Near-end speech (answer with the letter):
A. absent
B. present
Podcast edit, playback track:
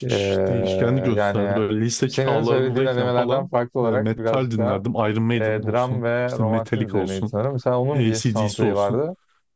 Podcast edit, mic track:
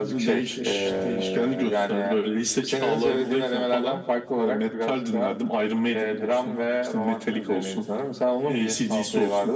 A